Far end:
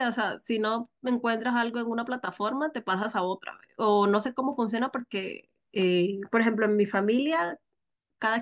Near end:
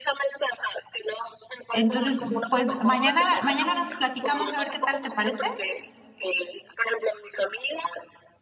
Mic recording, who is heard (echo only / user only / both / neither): both